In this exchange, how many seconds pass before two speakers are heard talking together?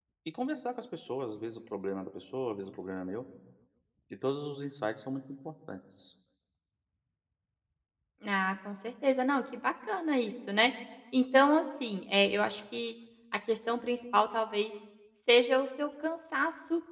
none

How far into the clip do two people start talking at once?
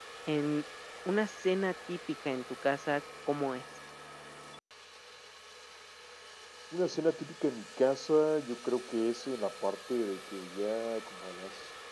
none

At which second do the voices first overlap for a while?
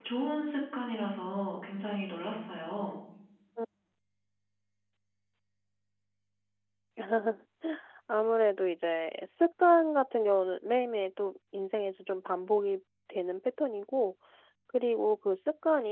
none

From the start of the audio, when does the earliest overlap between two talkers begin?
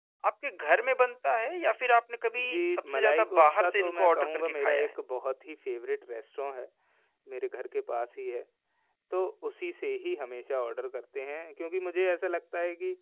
2 s

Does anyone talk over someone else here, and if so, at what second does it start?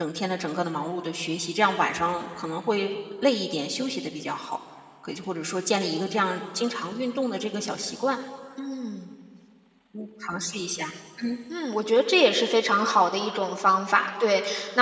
none

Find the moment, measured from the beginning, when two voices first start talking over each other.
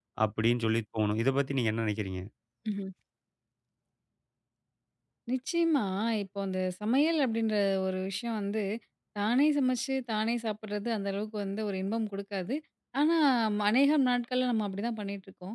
none

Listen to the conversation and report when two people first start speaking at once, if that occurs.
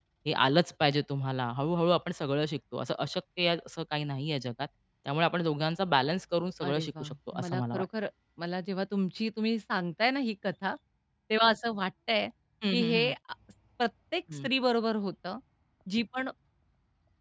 7 s

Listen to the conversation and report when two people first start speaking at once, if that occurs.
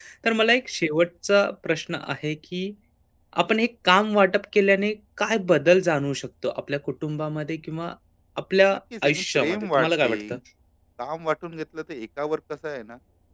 9 s

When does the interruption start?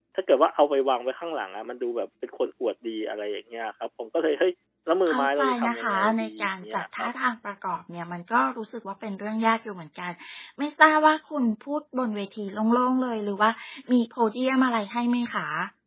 5 s

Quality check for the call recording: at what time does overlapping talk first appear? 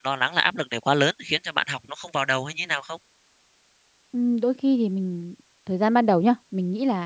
none

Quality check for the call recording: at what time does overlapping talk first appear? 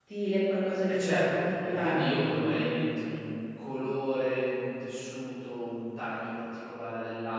1 s

